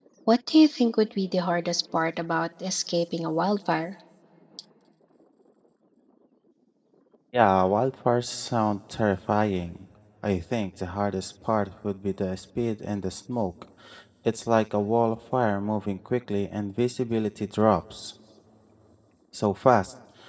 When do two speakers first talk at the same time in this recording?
none

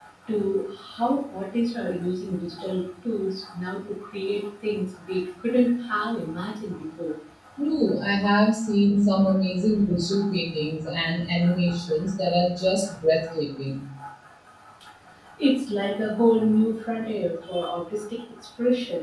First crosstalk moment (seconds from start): none

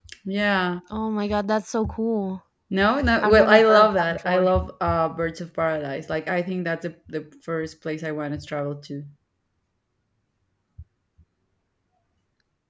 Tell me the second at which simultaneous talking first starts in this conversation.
3 s

